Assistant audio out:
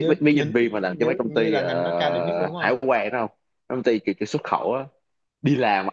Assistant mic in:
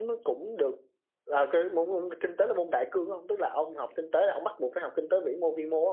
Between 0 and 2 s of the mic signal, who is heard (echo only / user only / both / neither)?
user only